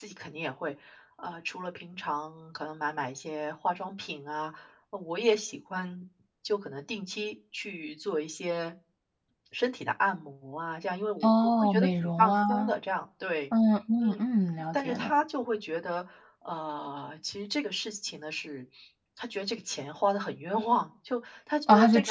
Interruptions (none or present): present